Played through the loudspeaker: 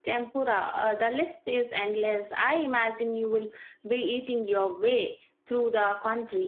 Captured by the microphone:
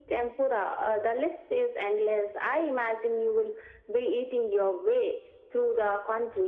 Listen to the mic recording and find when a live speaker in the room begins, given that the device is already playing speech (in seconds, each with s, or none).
none